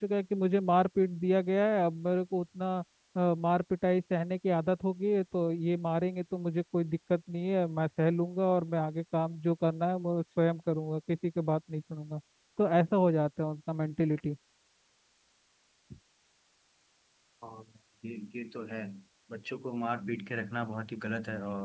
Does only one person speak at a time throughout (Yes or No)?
Yes